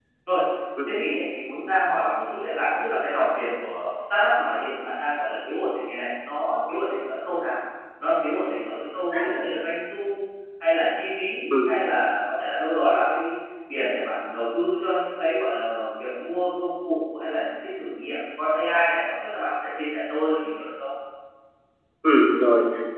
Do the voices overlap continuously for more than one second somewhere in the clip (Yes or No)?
No